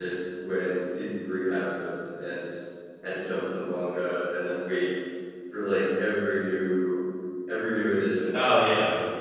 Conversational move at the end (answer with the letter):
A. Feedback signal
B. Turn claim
B